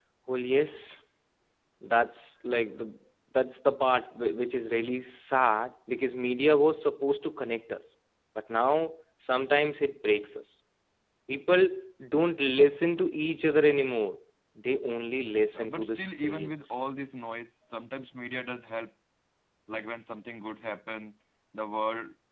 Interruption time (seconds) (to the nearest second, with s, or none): 16 s